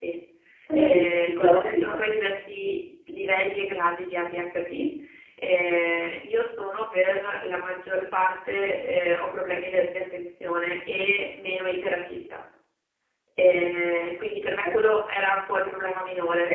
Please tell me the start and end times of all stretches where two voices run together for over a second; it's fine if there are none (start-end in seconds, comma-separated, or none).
0.7-2.0